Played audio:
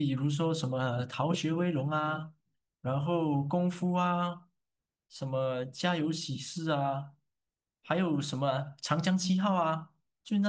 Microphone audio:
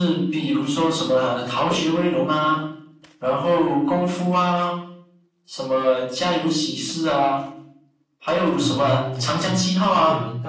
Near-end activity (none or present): present